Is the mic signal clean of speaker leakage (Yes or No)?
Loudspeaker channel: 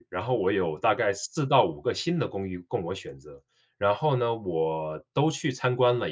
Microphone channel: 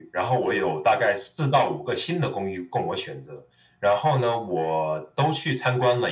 No